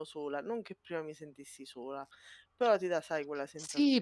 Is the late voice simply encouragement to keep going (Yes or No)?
No